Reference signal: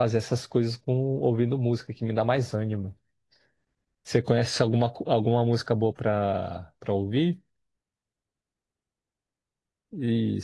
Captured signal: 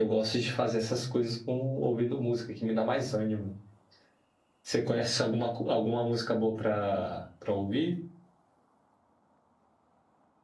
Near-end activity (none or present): none